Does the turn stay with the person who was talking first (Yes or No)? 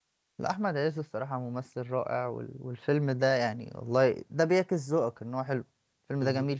No